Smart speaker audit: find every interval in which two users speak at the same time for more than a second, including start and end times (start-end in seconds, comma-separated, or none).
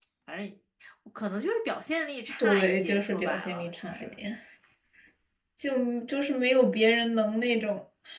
2.4-4.1